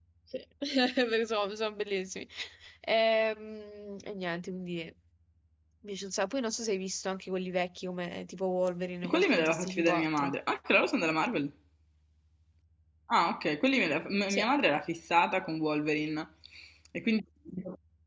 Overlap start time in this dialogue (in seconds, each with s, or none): 9.0 s